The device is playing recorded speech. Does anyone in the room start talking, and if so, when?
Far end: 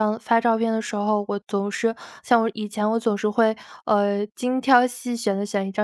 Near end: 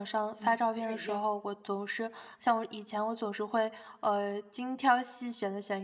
0.4 s

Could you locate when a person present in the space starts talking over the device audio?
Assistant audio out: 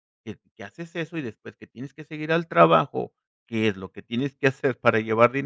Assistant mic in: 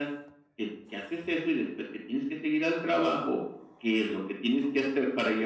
none

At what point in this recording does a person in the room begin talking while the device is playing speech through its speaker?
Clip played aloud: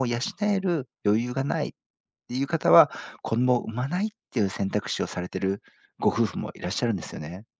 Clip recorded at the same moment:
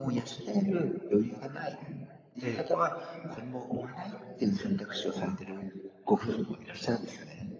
2.4 s

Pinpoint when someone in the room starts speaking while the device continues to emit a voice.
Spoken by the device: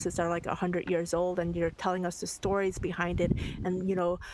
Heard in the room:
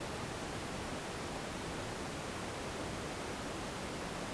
none

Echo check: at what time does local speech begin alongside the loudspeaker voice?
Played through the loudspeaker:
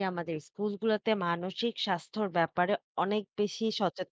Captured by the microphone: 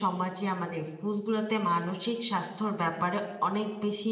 none

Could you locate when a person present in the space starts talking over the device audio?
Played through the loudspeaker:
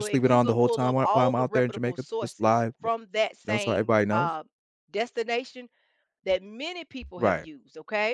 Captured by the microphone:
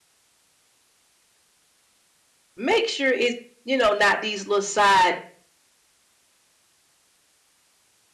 2.6 s

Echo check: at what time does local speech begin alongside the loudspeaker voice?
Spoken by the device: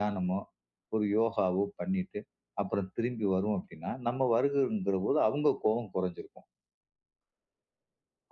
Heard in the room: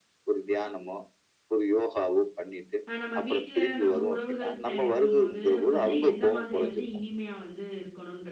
2.9 s

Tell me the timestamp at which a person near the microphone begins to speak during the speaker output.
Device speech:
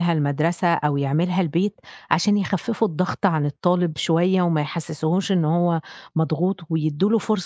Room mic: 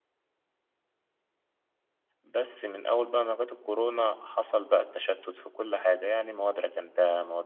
2.2 s

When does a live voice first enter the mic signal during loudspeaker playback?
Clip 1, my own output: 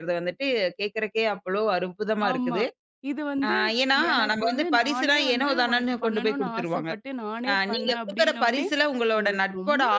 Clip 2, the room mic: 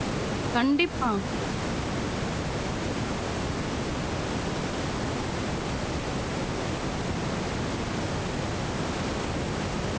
0.5 s

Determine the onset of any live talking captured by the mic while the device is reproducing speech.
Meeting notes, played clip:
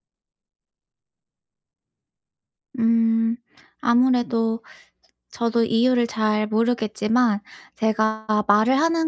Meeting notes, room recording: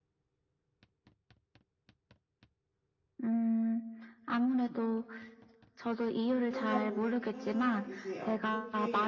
6.5 s

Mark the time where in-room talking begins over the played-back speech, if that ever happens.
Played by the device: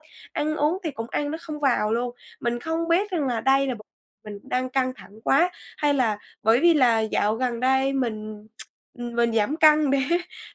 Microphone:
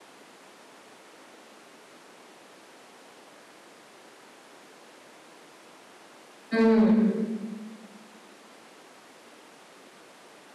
6.5 s

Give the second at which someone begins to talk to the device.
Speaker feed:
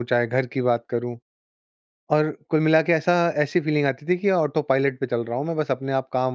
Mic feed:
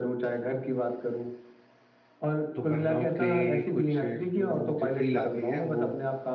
2.6 s

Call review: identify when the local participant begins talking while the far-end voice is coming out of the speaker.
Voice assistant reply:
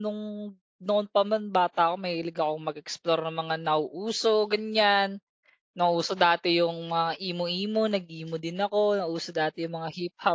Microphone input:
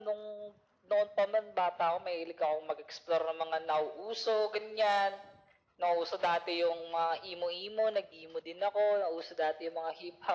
none

